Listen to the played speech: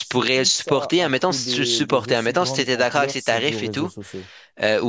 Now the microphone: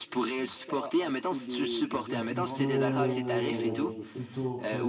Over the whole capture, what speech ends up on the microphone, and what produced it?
both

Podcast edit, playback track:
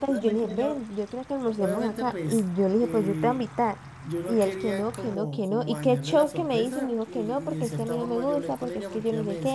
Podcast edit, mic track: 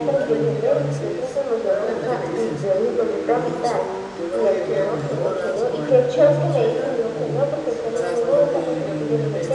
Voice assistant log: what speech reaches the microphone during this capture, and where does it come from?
both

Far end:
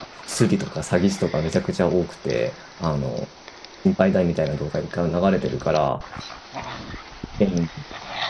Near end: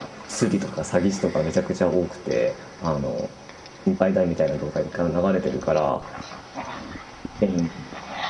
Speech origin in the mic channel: echo only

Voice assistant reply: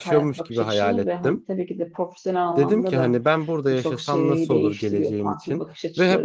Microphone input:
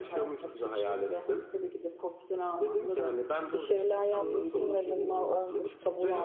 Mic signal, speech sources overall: both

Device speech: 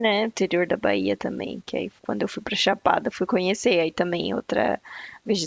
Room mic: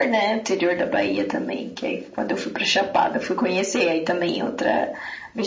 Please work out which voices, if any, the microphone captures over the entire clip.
echo only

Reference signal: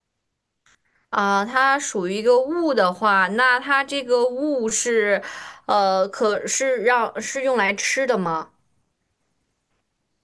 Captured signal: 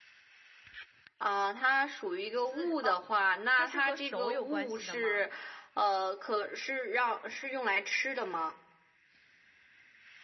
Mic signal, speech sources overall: both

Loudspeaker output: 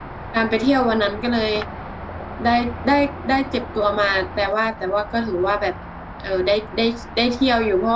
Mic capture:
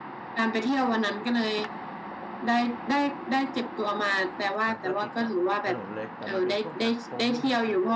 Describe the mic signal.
both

